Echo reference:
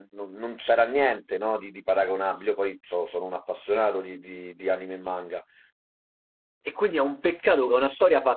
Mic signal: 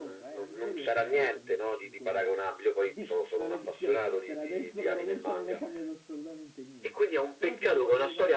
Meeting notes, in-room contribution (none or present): present